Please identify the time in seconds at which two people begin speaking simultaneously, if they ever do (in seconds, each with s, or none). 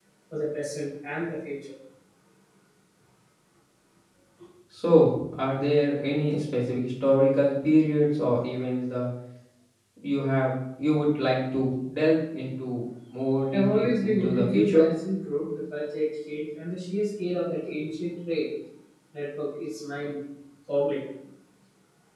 13.5 s